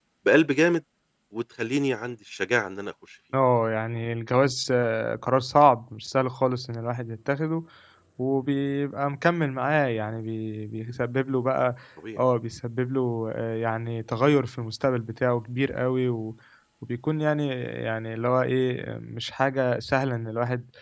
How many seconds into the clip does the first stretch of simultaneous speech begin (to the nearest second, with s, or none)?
none